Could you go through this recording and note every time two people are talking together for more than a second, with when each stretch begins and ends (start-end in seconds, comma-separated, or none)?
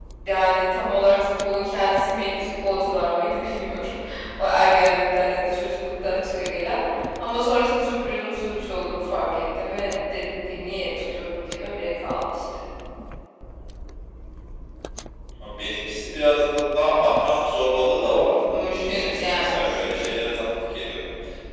18.5-20.0